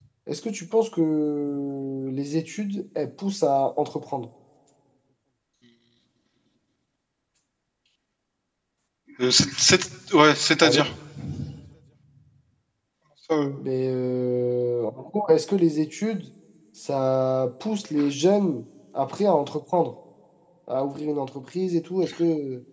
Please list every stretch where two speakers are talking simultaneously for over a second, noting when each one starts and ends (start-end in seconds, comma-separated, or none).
none